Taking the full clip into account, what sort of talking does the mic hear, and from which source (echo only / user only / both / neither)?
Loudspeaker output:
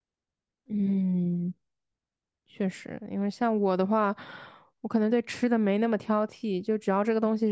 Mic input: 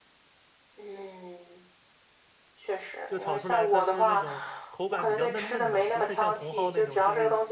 both